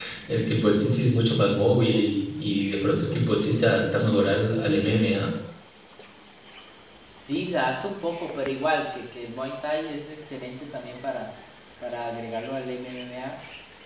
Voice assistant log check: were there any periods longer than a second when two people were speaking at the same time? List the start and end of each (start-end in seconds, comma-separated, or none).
none